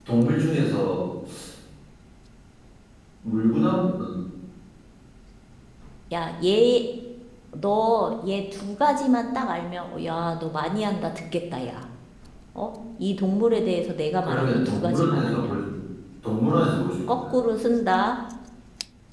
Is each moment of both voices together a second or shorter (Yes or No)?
No